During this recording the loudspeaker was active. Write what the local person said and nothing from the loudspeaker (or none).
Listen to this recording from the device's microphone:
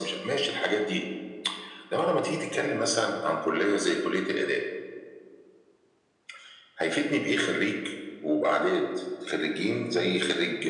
none